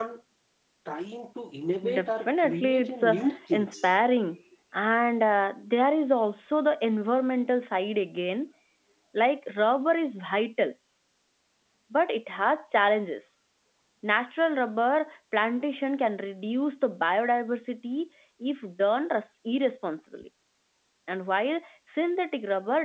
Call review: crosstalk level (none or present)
present